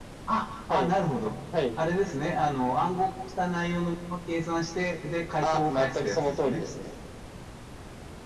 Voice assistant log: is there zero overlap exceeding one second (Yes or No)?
No